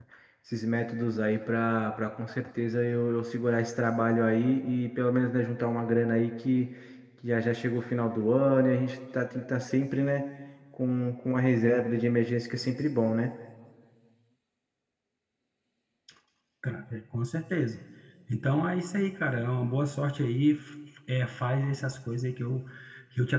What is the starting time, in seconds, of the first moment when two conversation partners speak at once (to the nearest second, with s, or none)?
none